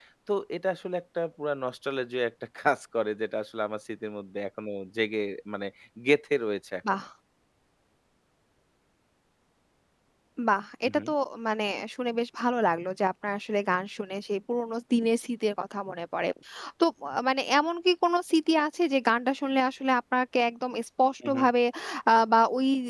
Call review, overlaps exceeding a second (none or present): none